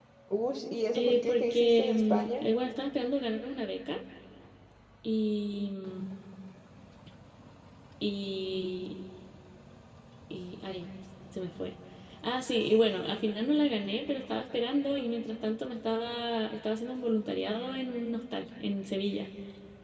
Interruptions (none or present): present